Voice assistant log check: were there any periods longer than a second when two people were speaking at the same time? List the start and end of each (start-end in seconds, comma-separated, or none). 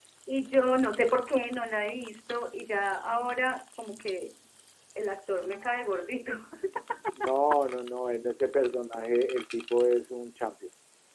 none